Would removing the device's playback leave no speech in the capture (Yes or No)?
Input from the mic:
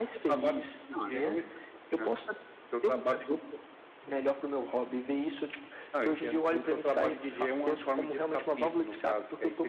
No